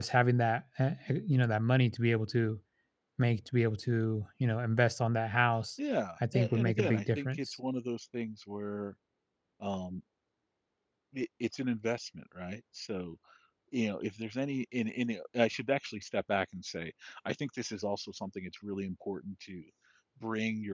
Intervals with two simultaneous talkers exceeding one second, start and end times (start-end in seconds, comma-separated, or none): 6.3-7.6